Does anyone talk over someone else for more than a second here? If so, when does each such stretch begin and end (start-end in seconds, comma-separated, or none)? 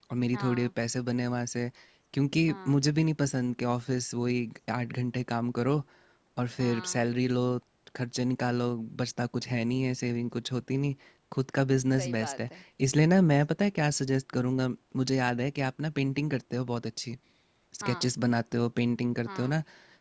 none